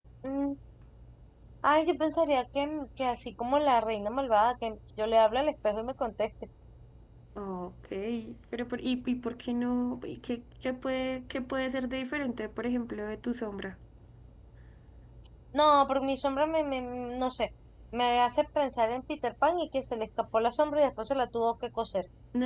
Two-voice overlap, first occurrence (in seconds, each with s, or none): none